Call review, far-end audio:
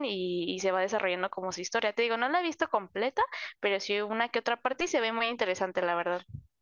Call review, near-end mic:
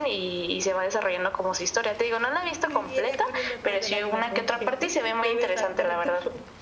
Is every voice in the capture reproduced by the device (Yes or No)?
No